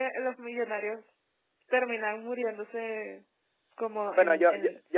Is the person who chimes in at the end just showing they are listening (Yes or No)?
No